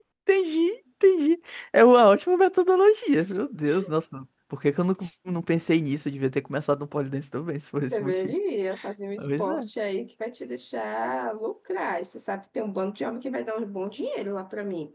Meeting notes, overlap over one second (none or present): none